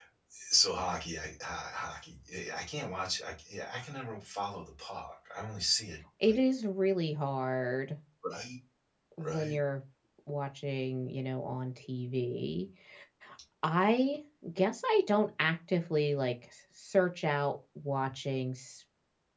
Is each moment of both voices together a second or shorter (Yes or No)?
Yes